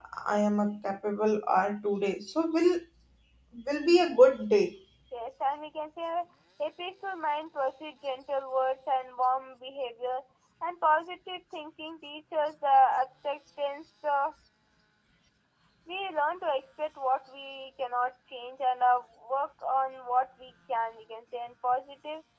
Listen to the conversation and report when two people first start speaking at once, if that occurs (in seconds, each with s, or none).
none